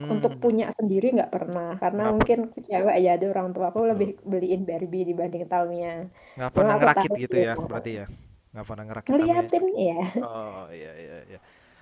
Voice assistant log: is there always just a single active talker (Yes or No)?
No